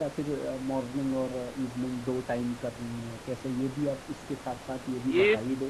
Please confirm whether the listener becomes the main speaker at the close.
Yes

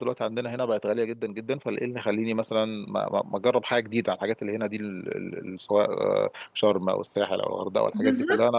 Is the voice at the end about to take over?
Yes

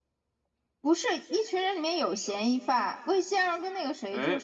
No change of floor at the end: Yes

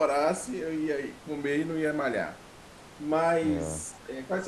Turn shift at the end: No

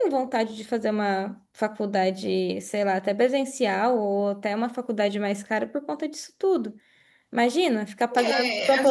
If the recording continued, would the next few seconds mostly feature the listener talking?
Yes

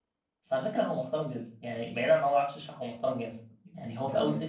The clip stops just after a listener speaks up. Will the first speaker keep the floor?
Yes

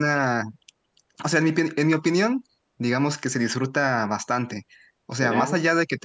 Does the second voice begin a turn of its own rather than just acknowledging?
No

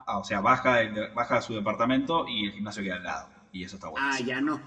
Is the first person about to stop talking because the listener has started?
Yes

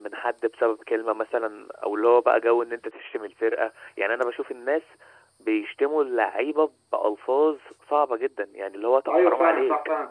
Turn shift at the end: Yes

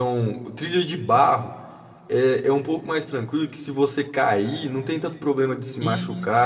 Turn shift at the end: No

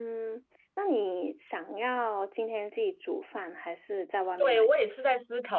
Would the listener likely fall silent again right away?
No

